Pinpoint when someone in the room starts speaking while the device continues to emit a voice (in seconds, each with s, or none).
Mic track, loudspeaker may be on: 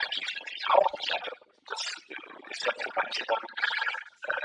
none